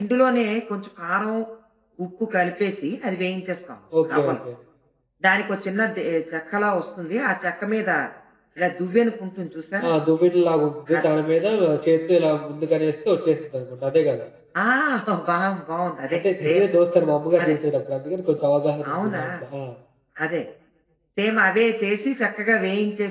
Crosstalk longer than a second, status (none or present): none